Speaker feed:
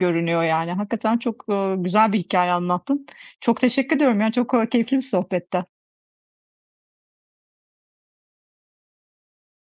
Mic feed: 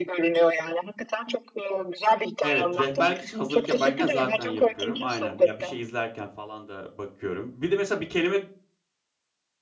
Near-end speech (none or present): present